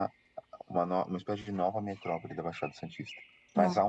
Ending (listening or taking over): listening